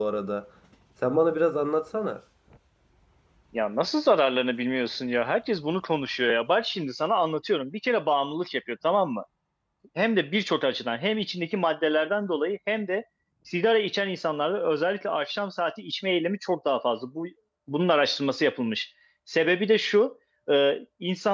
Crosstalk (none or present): none